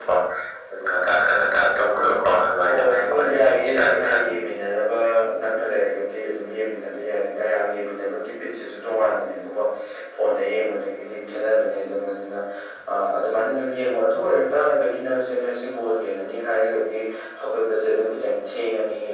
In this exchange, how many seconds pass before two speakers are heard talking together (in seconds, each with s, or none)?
2.7 s